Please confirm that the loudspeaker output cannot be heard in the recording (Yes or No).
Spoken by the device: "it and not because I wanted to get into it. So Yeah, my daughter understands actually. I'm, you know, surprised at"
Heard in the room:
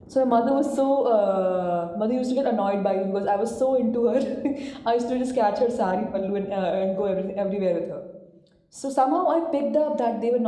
Yes